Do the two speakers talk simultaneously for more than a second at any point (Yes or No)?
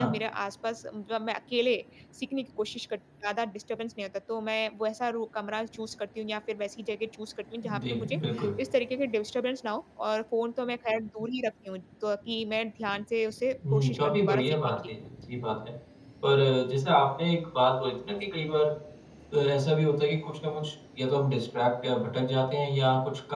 Yes